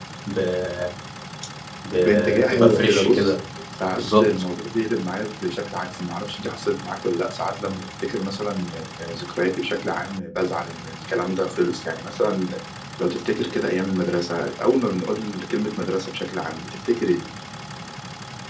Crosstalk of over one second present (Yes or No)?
Yes